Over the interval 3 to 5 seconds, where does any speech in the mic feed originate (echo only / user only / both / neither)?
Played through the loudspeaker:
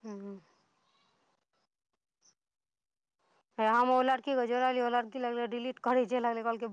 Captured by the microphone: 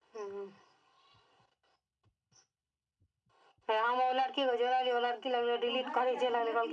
echo only